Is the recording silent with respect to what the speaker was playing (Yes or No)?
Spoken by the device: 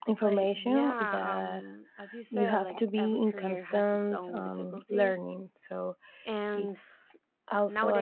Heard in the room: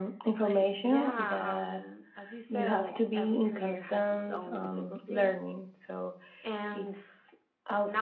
No